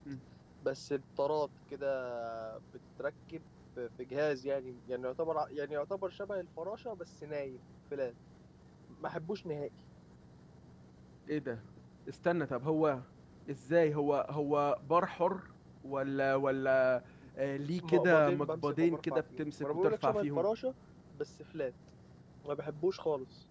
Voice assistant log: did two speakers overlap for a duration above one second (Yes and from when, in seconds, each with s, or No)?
Yes, from 17.8 s